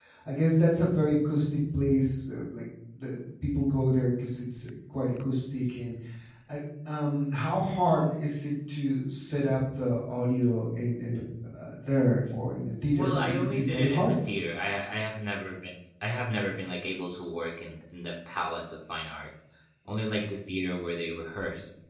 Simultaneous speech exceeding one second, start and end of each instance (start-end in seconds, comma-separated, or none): 12.9-14.1